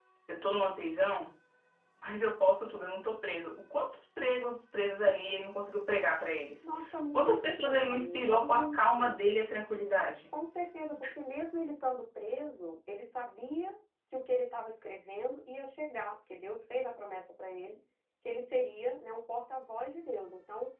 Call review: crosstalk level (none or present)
present